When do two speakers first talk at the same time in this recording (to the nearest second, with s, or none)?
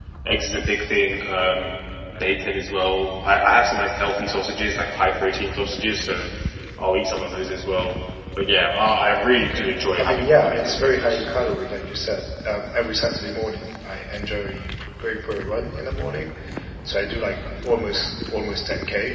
9 s